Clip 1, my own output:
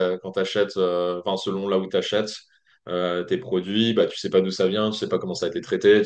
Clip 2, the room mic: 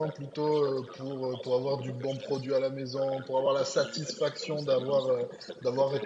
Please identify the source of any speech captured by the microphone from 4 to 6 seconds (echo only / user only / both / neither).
both